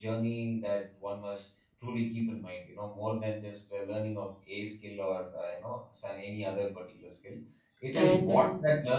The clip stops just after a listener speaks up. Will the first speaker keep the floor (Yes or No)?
Yes